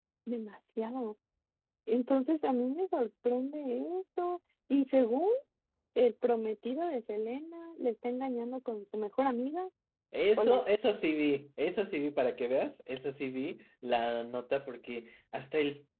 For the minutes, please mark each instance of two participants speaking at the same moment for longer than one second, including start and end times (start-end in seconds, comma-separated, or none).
none